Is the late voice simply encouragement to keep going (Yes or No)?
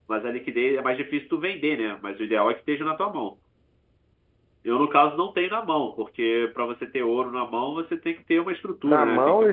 No